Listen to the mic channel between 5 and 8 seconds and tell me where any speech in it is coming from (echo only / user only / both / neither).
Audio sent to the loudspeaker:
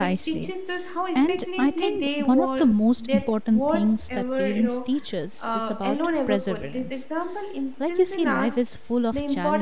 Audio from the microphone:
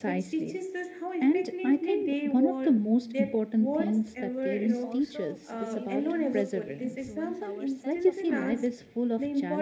both